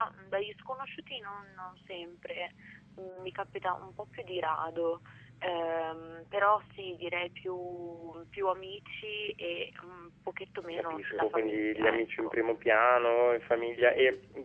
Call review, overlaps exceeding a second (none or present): present